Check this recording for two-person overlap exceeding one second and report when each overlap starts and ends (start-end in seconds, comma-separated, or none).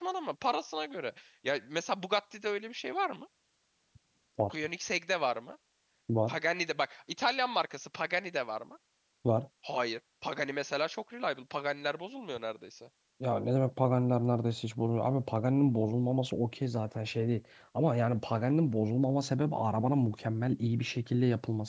none